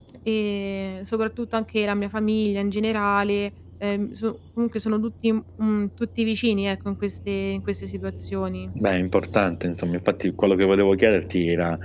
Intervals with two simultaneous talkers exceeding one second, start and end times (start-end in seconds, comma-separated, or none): none